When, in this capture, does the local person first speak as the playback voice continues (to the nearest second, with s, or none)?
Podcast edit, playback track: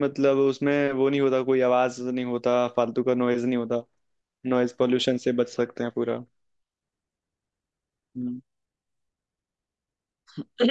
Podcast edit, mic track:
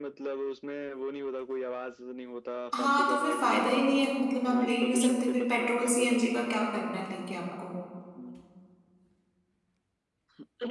3 s